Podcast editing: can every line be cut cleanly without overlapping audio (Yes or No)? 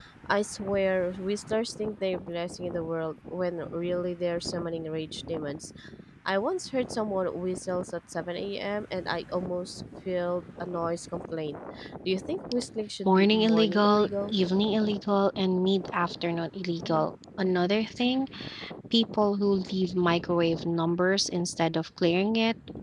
No